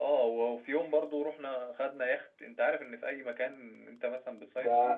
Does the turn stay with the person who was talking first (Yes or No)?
No